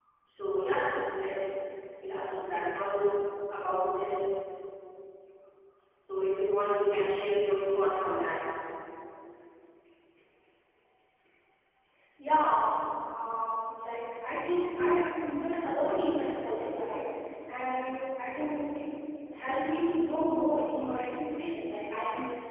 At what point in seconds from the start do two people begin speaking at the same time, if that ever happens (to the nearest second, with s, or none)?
none